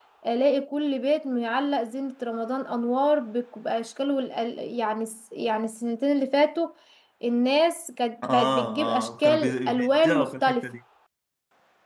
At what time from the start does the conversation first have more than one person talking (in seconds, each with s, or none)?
8.2 s